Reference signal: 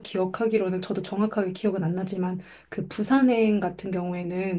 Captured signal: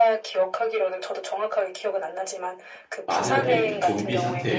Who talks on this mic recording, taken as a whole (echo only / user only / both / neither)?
both